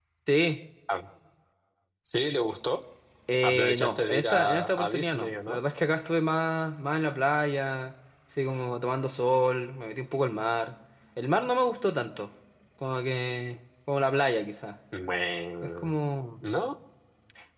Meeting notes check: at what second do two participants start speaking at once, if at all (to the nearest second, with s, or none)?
3 s